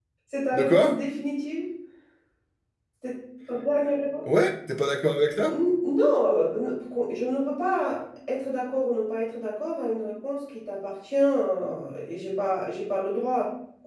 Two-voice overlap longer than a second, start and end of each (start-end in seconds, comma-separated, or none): none